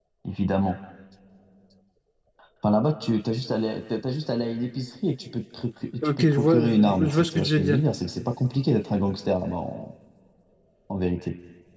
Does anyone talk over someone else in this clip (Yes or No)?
Yes